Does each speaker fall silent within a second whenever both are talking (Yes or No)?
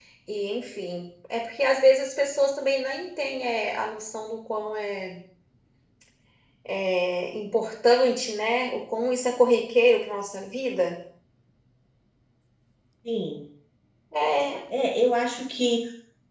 Yes